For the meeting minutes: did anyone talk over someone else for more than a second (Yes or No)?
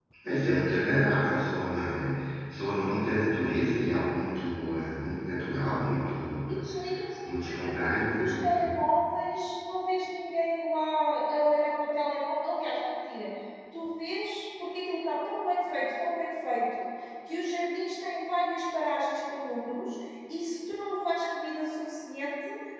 Yes